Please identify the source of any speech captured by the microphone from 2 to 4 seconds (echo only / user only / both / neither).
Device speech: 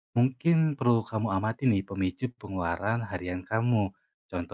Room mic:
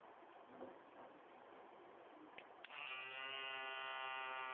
neither